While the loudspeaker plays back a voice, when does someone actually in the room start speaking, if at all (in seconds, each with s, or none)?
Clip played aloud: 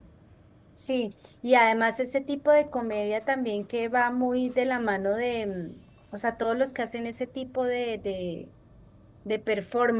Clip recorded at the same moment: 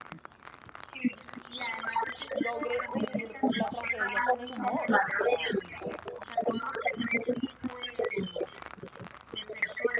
2.3 s